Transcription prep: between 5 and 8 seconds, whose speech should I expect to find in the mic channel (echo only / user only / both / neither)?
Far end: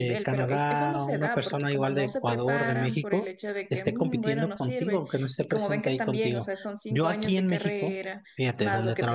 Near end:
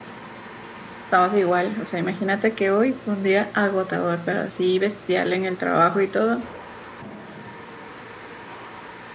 user only